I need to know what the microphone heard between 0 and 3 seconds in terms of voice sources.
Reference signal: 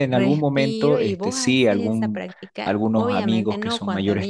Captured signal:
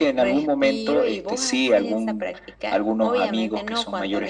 echo only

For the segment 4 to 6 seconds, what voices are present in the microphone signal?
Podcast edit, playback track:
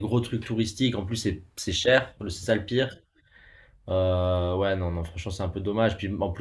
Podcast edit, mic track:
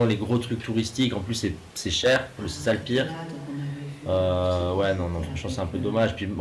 both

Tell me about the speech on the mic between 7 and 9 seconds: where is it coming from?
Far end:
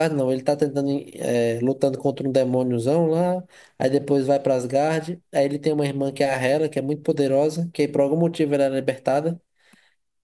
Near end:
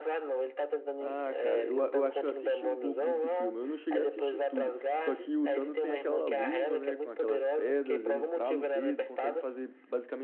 both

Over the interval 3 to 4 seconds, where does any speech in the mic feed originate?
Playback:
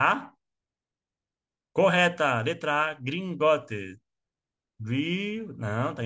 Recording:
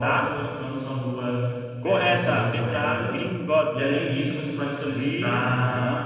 both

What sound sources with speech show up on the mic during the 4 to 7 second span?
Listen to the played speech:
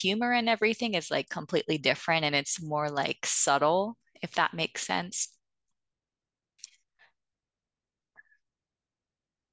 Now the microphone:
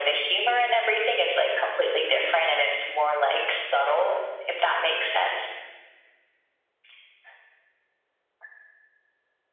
echo only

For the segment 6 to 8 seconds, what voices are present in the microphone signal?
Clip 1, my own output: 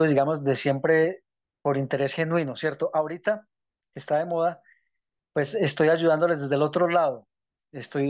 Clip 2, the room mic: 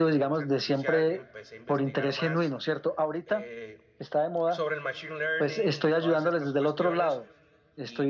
both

